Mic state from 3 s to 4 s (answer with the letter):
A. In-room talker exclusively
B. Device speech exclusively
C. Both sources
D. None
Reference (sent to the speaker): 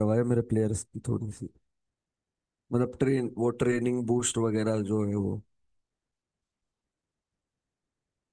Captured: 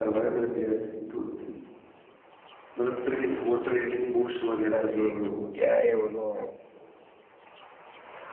B